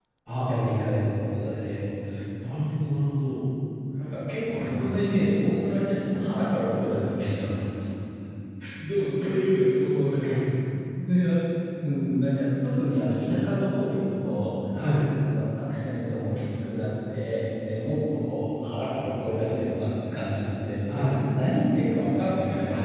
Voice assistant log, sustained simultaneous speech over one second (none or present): none